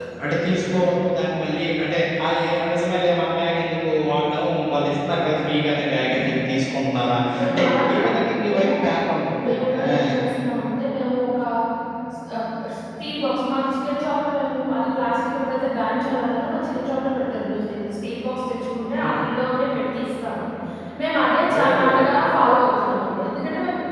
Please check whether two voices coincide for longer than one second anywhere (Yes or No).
Yes